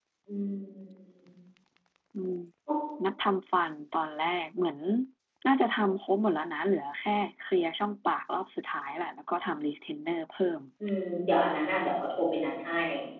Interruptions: none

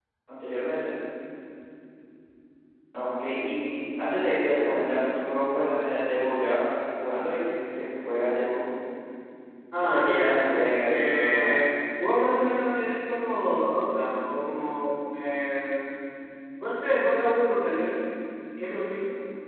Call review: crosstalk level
present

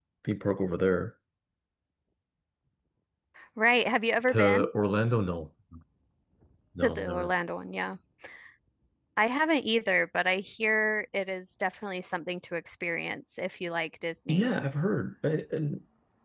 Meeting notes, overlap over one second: none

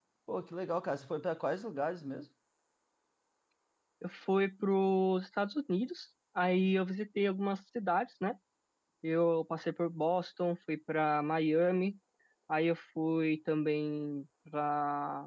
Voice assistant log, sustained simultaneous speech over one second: none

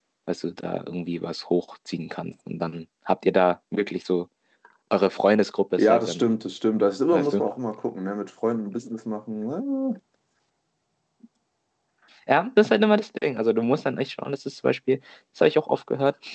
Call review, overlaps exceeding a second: none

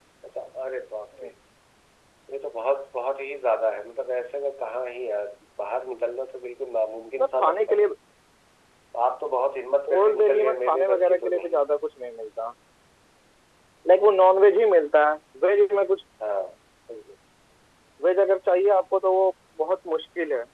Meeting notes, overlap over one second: present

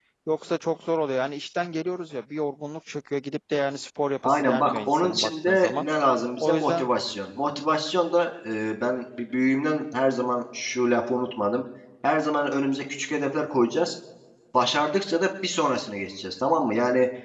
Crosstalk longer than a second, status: present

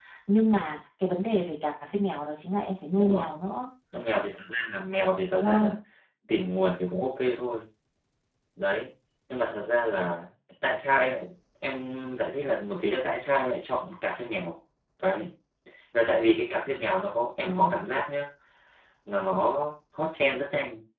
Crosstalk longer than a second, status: none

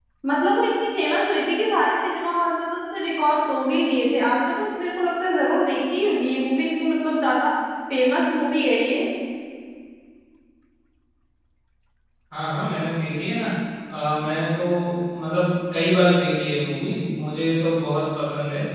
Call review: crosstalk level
none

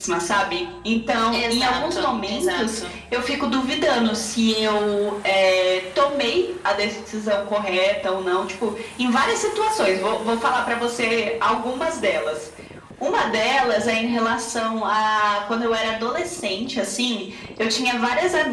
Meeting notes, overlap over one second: present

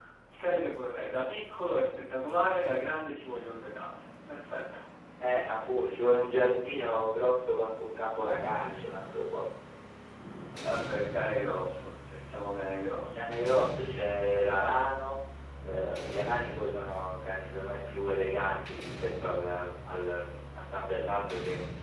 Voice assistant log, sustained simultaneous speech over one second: none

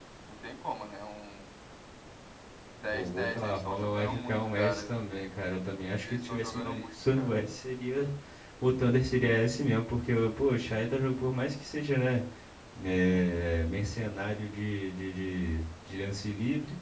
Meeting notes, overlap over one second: present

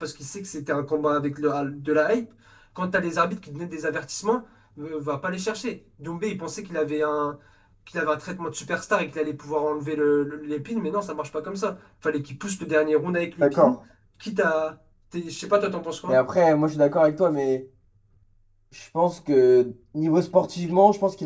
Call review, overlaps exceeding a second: none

